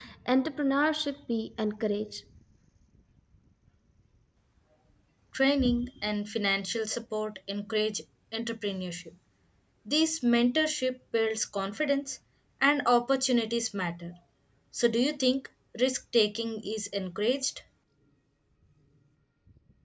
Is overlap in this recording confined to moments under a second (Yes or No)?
Yes